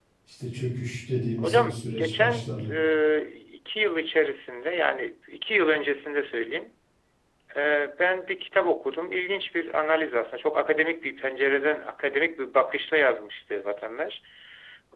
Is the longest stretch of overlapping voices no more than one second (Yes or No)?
No